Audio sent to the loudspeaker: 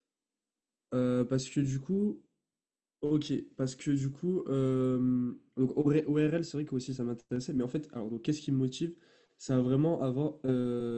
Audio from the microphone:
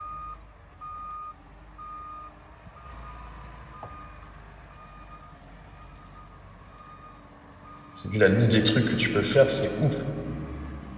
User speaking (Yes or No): Yes